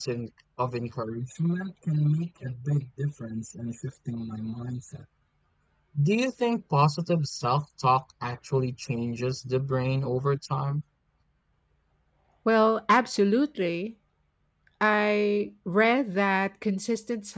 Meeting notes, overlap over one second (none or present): none